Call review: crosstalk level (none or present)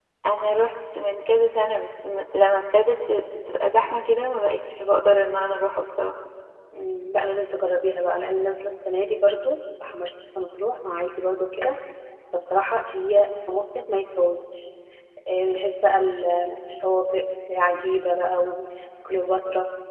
none